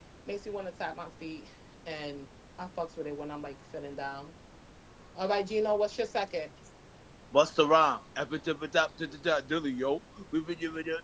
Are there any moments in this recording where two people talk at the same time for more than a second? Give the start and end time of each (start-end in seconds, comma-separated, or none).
none